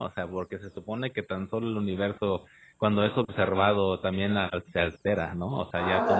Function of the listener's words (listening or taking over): taking over